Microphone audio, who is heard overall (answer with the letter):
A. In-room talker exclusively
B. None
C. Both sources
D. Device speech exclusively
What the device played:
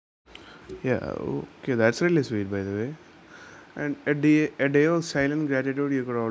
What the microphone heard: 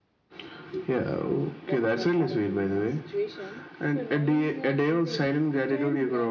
C